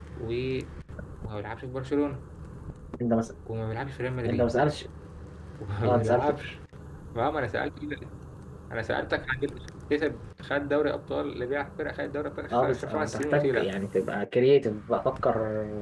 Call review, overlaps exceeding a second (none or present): present